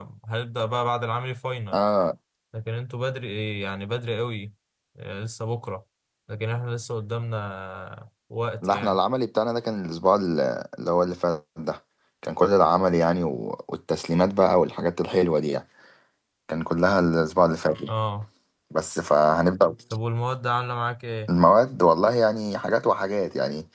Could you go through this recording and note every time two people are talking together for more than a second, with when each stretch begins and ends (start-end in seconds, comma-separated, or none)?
none